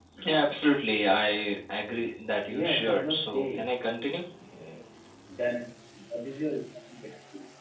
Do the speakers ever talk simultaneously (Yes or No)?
Yes